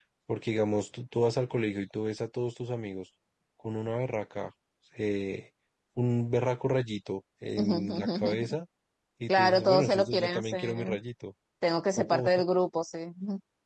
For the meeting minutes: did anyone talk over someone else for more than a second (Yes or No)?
Yes